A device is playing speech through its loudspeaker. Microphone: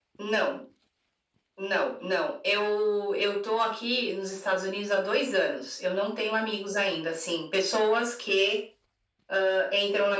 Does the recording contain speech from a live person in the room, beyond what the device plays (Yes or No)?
No